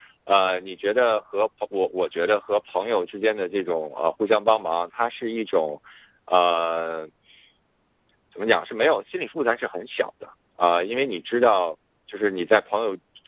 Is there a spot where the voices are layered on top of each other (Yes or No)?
No